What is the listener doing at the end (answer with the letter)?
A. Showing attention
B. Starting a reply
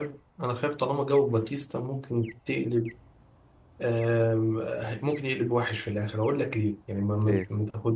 A